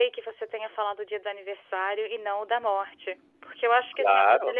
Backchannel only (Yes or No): Yes